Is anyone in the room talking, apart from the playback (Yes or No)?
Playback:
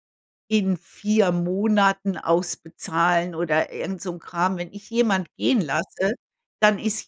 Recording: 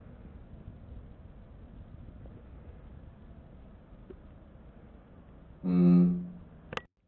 Yes